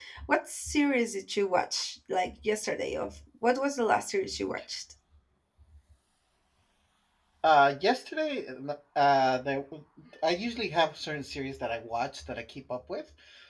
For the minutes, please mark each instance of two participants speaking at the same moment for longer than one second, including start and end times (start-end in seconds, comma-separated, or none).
none